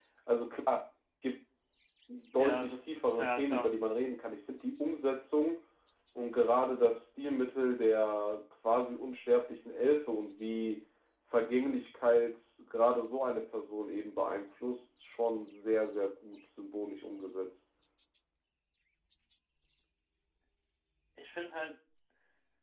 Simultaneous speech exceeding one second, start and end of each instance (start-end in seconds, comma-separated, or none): 2.3-3.7